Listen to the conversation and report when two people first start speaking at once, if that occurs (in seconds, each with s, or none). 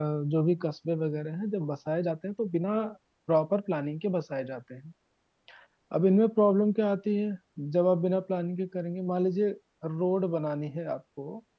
none